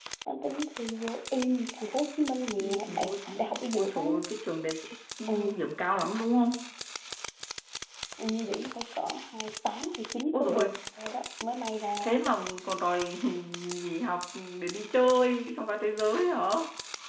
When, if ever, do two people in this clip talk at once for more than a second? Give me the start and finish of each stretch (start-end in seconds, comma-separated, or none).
2.6-4.0